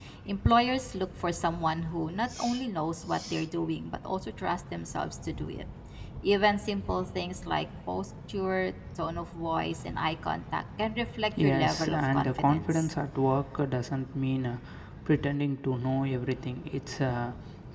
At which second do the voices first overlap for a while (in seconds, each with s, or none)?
11.4 s